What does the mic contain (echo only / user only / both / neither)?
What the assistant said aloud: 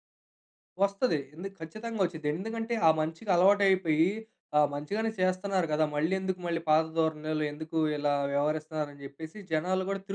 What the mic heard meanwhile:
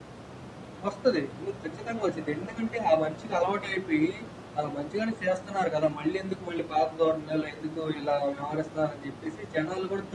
echo only